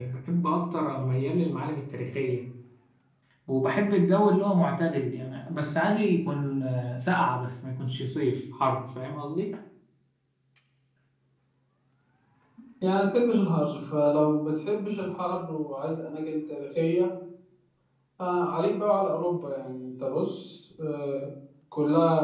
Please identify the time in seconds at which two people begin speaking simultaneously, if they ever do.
none

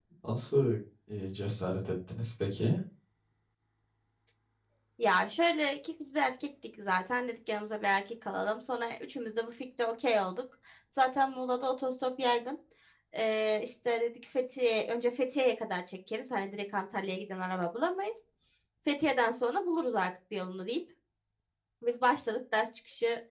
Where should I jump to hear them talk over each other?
none

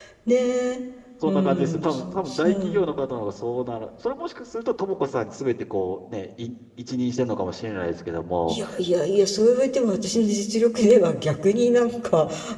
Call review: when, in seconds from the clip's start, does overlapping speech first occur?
1 s

